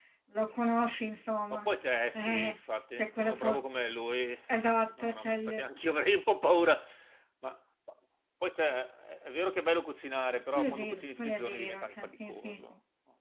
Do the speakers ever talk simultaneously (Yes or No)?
Yes